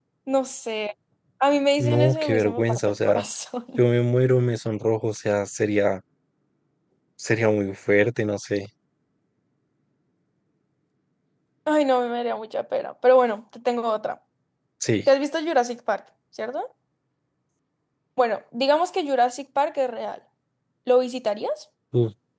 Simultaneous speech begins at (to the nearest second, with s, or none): 2 s